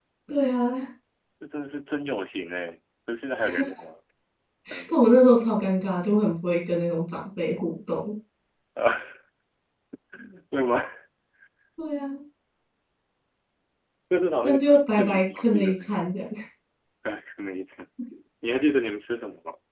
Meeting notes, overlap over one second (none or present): present